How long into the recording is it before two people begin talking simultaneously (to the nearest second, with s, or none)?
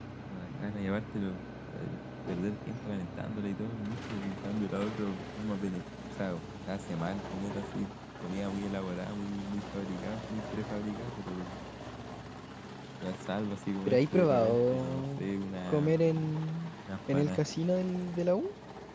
14 s